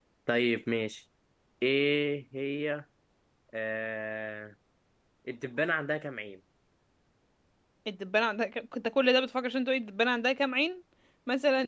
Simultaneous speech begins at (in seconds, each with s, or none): none